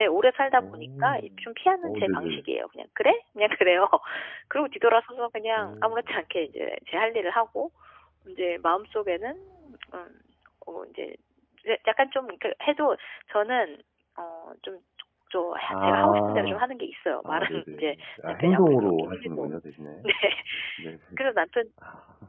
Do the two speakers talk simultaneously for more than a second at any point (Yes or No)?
Yes